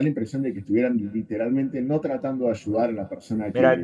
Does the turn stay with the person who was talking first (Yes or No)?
No